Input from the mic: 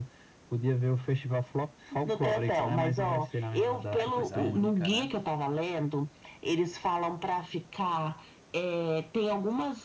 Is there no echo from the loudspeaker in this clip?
No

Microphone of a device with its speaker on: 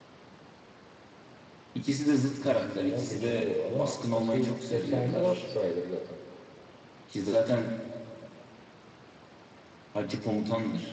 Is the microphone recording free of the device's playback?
No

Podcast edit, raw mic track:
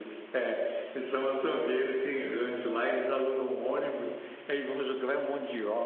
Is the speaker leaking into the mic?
Yes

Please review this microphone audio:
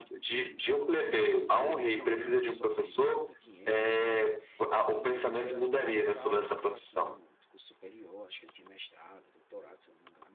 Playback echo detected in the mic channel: Yes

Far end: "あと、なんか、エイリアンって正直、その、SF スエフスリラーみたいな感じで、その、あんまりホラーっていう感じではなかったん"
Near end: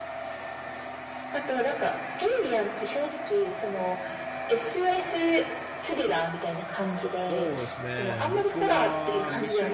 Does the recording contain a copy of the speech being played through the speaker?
Yes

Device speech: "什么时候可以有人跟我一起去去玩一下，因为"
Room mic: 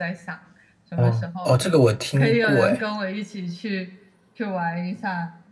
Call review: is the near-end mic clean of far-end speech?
No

